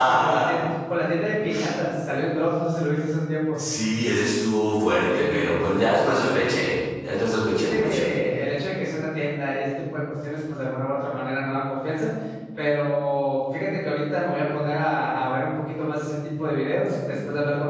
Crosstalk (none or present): present